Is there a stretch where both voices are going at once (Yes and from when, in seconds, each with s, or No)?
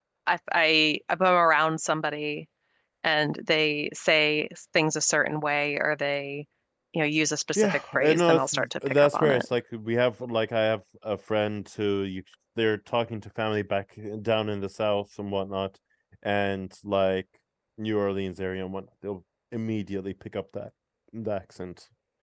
Yes, from 7.5 s